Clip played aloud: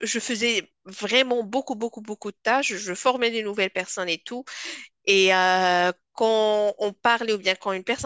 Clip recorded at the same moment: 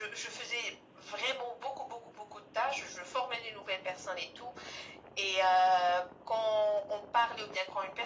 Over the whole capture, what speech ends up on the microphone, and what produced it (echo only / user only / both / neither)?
echo only